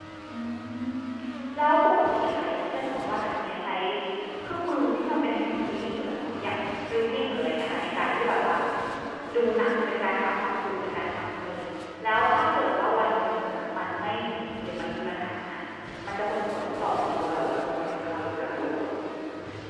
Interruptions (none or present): present